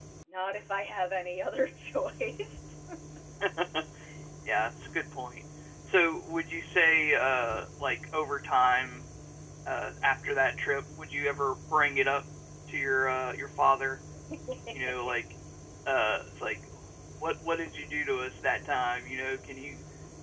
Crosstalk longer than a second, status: none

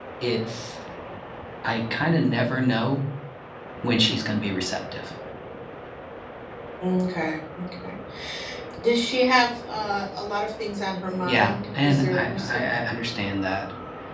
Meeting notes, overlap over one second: present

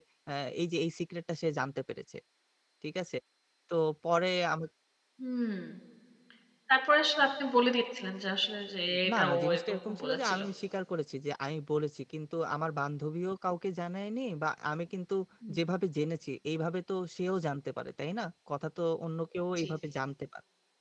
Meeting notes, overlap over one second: present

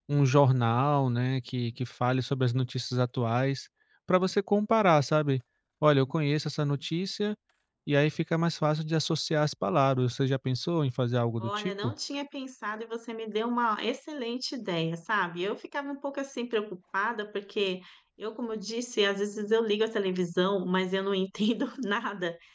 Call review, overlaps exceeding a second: none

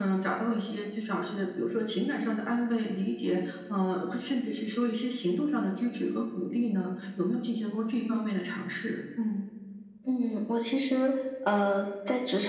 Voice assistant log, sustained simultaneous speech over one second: none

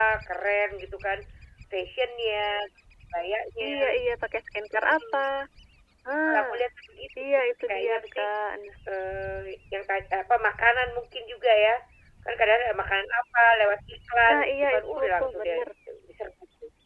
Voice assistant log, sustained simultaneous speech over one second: present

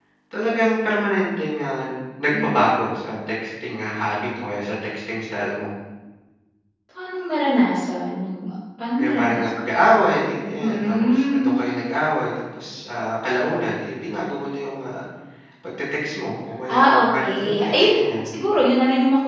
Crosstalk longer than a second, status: present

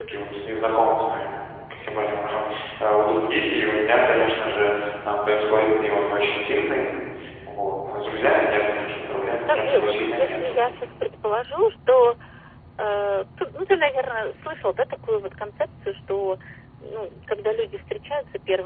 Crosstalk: present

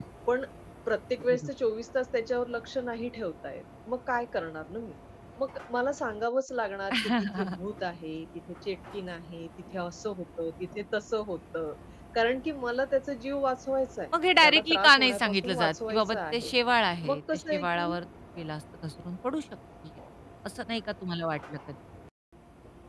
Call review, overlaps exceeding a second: present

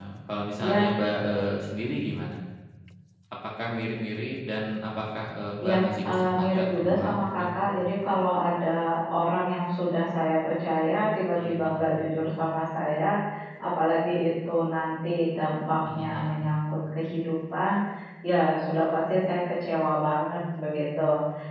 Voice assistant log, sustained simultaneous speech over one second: present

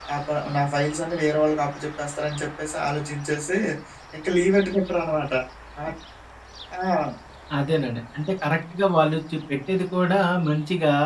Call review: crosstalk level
none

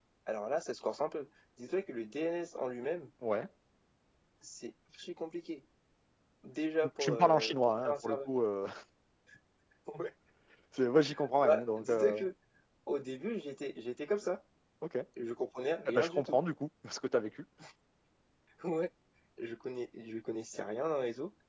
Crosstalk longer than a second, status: present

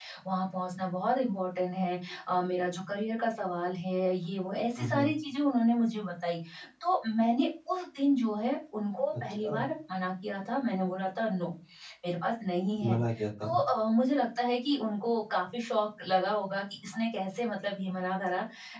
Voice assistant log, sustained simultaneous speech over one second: none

